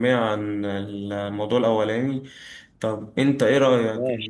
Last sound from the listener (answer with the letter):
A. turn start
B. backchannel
B